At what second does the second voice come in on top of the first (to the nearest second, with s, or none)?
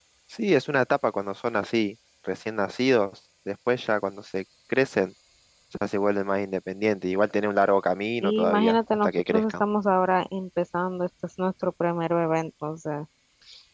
8 s